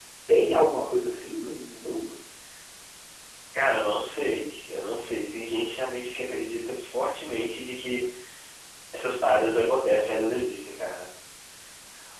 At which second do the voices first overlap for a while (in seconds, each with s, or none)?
none